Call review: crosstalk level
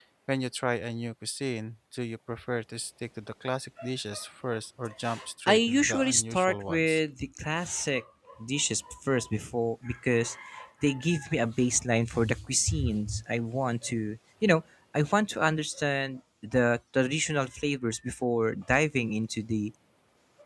present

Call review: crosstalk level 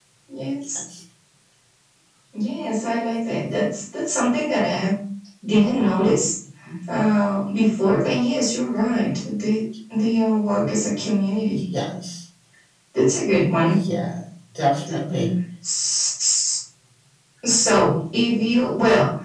none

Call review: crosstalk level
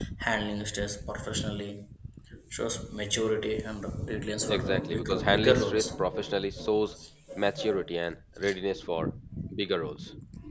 present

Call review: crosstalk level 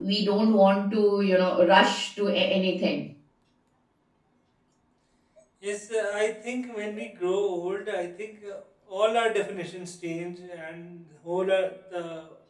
none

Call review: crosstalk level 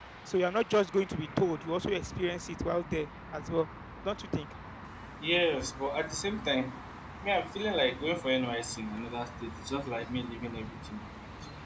none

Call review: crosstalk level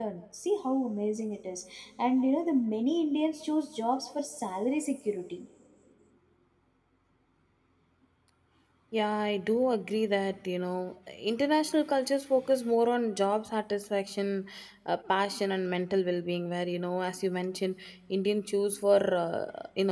none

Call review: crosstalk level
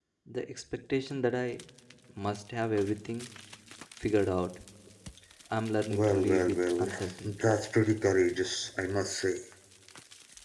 present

